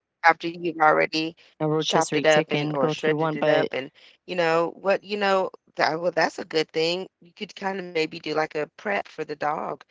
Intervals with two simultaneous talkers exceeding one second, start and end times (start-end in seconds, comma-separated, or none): 1.8-3.6